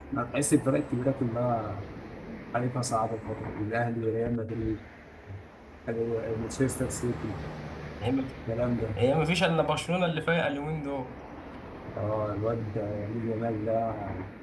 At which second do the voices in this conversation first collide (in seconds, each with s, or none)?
none